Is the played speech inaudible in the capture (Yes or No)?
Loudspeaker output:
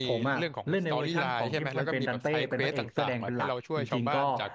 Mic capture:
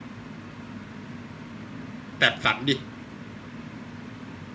Yes